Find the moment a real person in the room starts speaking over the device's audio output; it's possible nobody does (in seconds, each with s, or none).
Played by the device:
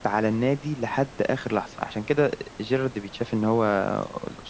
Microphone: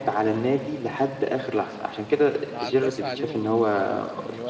2.5 s